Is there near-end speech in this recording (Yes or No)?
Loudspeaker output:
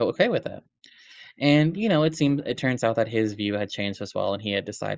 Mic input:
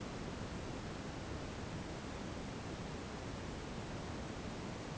No